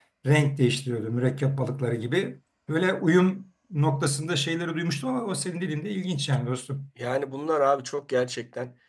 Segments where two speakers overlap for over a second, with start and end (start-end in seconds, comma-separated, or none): none